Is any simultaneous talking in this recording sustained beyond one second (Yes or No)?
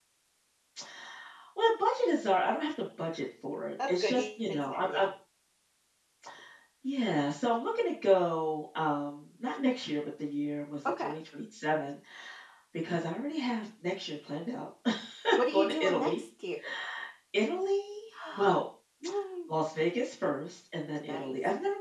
Yes